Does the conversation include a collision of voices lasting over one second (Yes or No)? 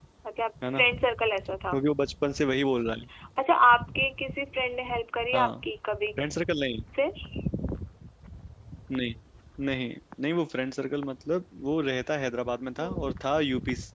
No